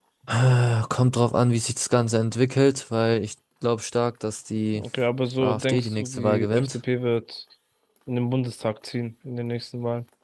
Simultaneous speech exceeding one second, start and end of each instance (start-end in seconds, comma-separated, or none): 5.4-6.8